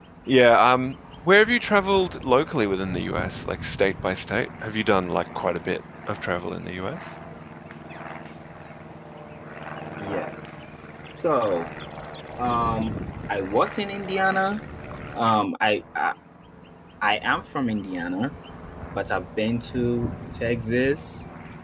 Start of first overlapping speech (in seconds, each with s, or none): none